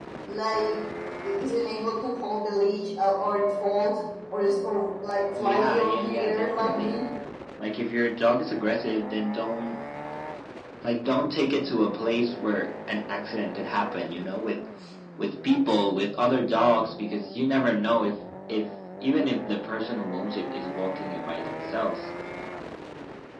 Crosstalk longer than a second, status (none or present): present